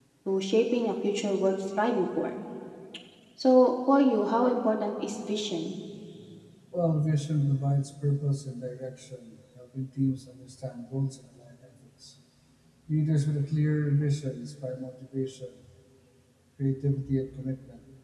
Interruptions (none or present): none